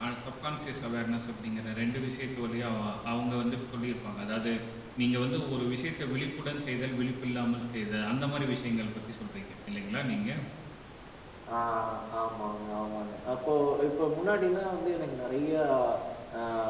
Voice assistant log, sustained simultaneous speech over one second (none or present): none